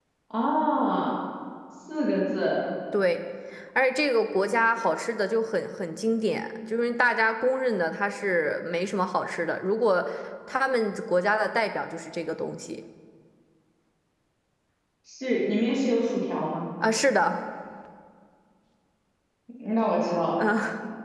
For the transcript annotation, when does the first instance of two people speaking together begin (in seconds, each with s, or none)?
none